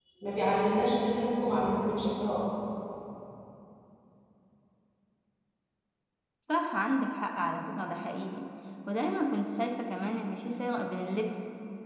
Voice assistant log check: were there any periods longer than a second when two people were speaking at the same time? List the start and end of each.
none

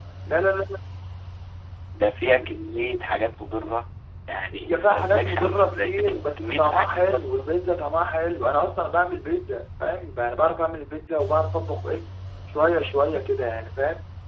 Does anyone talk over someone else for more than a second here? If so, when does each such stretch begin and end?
4.5-7.5

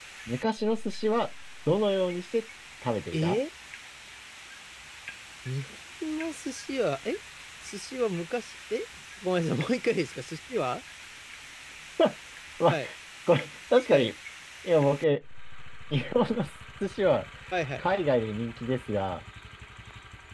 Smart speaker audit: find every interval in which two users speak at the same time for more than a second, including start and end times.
none

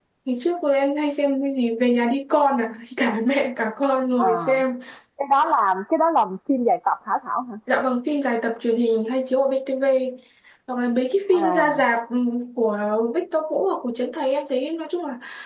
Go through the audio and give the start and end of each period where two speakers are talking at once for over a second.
none

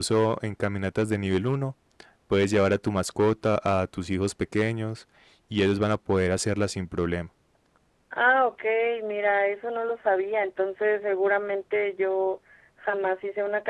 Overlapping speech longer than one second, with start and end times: none

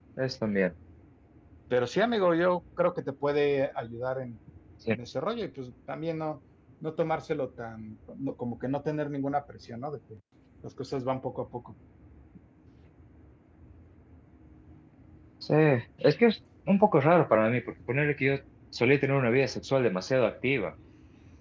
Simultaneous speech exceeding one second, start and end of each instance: none

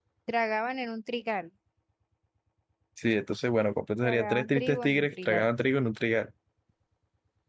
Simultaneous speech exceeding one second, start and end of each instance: 4.0-5.5

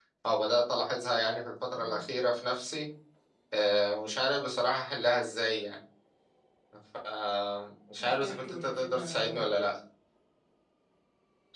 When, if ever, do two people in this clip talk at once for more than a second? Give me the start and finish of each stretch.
8.0-9.4

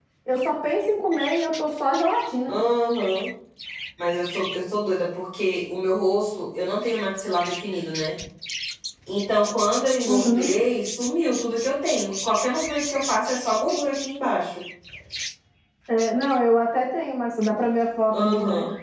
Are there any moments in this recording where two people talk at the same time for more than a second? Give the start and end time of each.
none

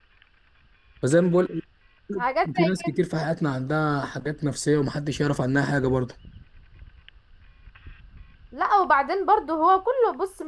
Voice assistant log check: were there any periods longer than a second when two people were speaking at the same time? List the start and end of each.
none

